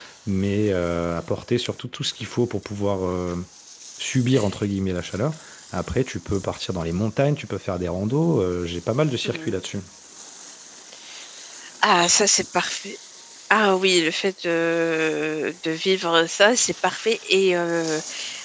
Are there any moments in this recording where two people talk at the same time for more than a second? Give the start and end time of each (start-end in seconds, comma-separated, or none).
none